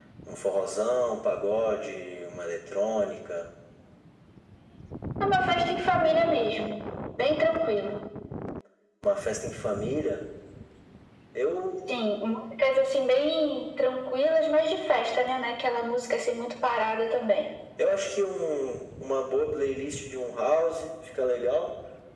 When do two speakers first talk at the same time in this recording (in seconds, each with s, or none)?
none